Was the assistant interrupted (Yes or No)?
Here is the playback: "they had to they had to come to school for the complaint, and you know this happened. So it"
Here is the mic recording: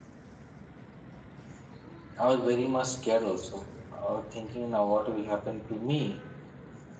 Yes